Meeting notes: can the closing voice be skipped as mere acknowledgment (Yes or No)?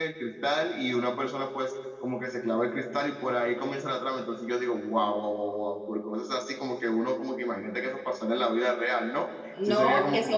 No